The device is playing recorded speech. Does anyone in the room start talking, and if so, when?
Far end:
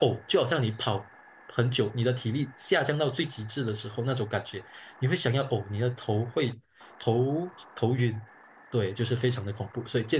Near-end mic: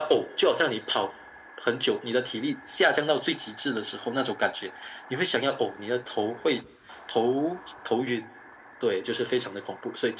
none

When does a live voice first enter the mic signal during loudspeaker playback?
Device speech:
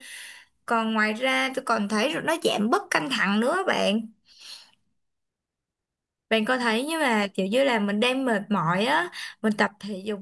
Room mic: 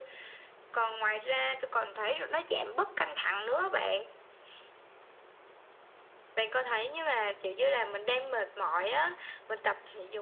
none

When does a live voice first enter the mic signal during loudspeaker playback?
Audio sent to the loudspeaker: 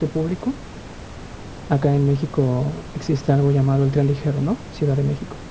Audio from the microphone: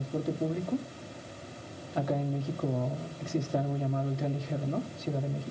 none

